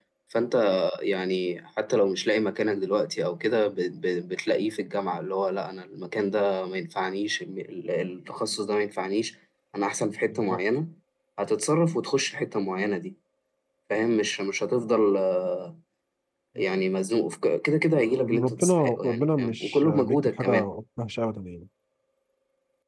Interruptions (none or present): present